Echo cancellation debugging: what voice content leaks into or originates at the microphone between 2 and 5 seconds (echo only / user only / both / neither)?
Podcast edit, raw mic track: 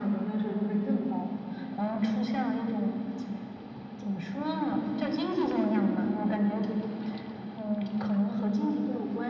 echo only